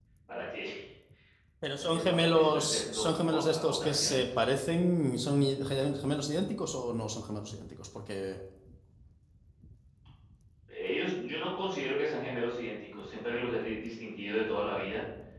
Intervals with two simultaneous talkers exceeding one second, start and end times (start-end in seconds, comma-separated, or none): 1.9-4.3